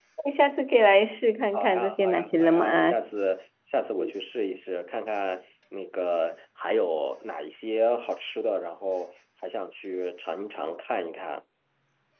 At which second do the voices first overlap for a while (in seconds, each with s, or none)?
1.5 s